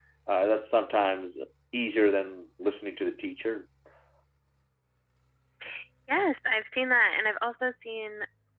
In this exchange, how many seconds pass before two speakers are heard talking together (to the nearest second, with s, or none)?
none